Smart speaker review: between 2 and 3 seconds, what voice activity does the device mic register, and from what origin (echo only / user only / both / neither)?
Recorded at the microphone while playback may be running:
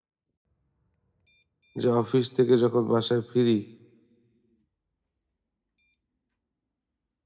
user only